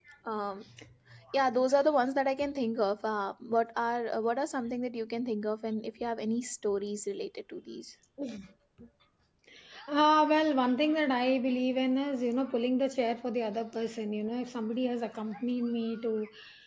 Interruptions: none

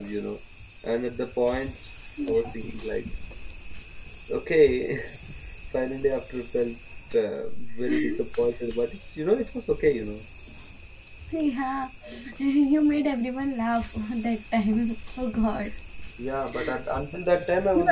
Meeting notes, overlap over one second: none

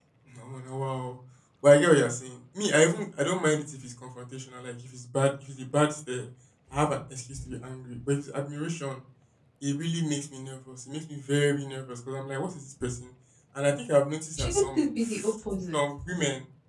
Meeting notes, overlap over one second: none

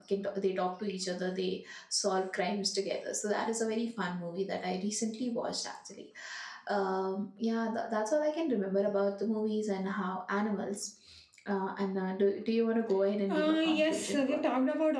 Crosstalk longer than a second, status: present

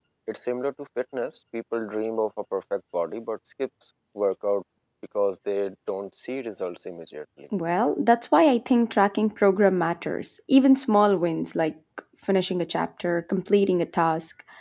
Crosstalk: none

